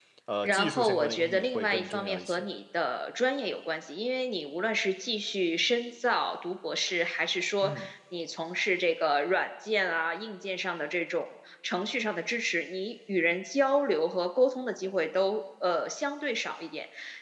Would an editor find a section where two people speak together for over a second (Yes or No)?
Yes